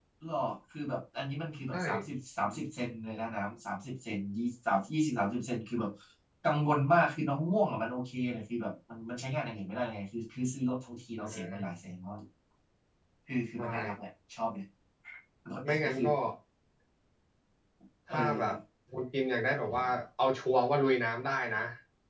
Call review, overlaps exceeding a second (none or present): none